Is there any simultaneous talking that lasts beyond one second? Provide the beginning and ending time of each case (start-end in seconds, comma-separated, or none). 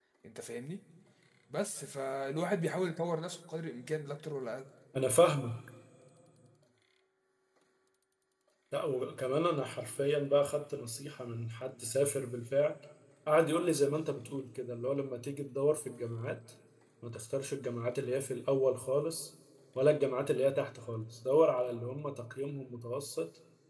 none